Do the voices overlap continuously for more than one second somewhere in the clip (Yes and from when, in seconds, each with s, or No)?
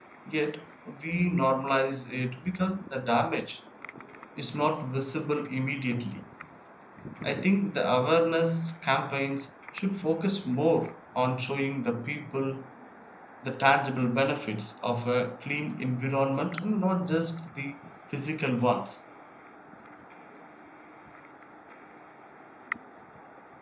No